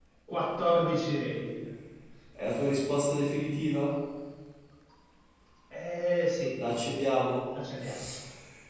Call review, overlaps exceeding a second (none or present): none